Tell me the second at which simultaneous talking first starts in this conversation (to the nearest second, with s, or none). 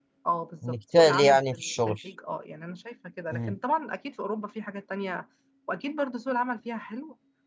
1 s